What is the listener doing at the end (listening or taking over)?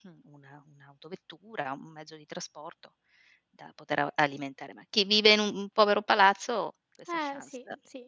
taking over